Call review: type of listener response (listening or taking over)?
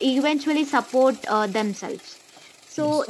listening